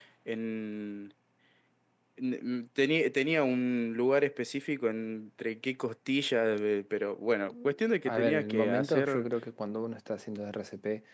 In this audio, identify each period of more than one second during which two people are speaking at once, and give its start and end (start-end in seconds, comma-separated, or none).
8.1-9.3